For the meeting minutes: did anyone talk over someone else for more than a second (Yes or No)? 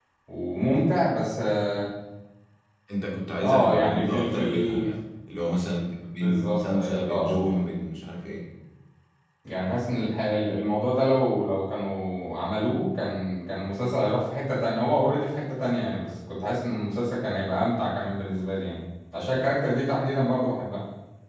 Yes